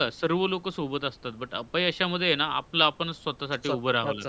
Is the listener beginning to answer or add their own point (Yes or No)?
Yes